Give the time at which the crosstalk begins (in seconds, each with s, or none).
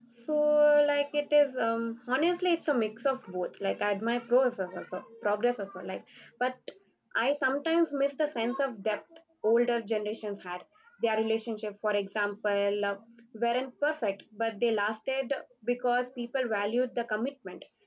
none